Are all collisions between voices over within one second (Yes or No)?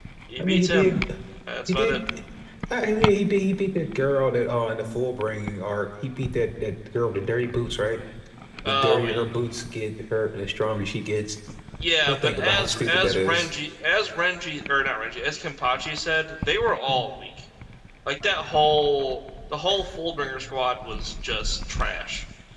No